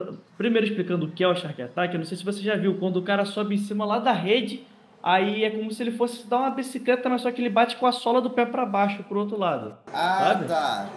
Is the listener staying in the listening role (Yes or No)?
No